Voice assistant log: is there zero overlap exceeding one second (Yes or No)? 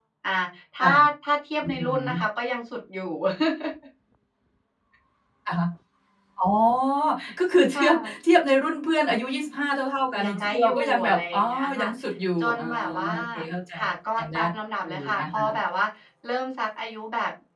No